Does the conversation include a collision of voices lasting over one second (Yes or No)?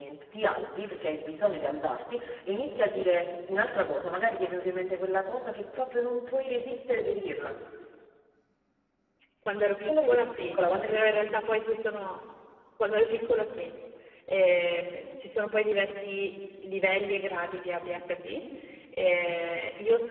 Yes